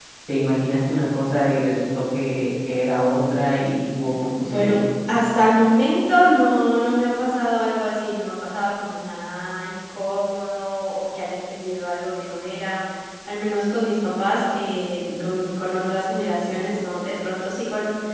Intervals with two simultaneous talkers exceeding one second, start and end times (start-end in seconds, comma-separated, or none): none